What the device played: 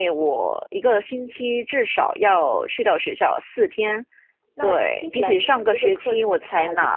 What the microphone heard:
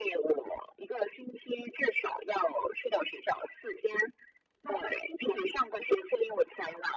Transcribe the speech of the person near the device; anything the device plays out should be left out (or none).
none